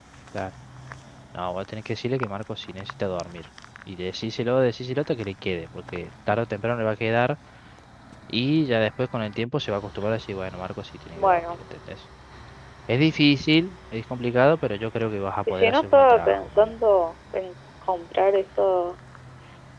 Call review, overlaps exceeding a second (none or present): present